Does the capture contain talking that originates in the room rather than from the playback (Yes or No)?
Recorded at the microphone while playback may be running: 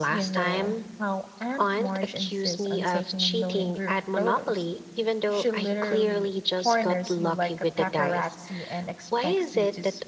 Yes